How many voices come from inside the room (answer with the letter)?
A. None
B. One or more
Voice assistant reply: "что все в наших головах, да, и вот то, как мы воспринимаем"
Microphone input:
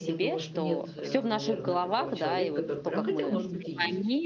B